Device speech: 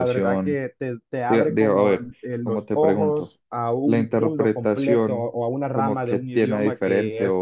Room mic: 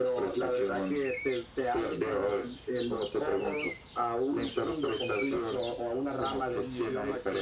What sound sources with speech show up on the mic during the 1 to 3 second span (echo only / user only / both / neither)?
echo only